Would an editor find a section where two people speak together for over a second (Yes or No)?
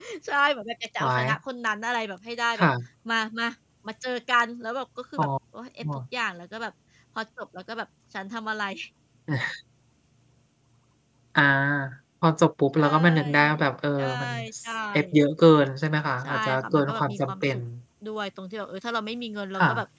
Yes